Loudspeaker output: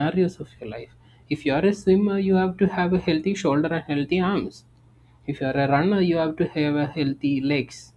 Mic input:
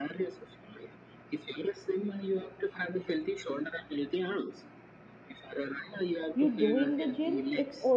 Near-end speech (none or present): present